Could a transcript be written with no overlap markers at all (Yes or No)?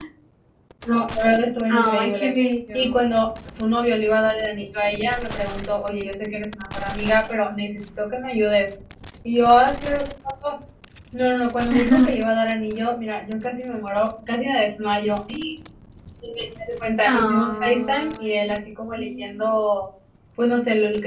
No